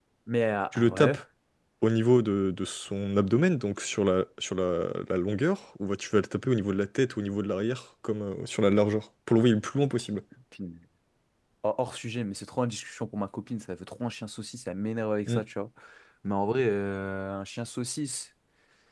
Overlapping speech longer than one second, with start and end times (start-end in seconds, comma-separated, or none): none